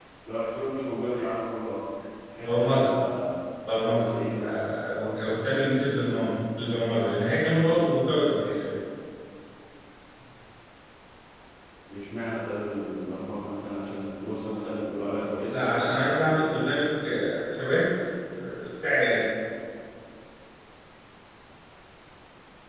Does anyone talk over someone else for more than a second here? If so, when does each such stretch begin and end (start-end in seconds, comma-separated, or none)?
15.4-16.7